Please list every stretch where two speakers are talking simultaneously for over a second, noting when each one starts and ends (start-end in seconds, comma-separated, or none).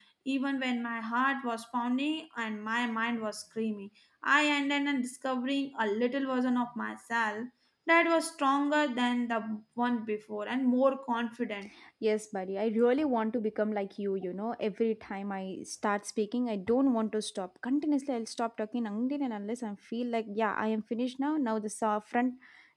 none